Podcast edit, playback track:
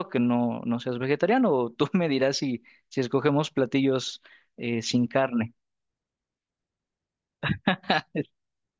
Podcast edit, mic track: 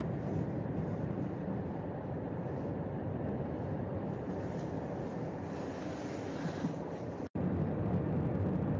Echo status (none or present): none